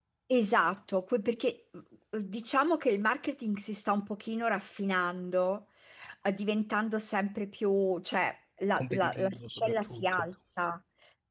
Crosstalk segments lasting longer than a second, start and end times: 8.8-10.2

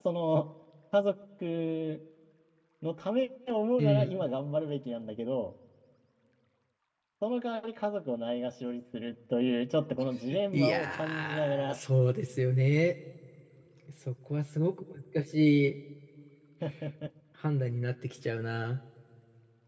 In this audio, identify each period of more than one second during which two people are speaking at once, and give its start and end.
10.5-11.8

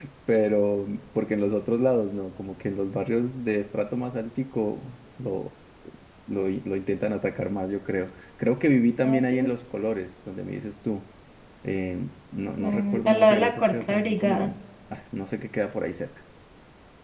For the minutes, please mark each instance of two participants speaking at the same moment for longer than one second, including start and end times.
12.6-14.5

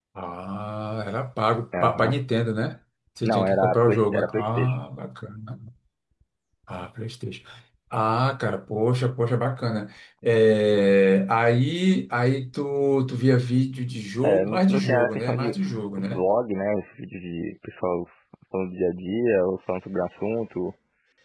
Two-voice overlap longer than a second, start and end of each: 3.2-4.8, 14.2-15.5

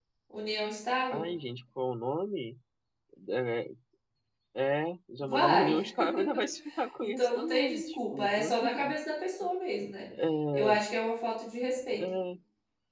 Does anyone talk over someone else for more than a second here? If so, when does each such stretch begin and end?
7.0-9.0

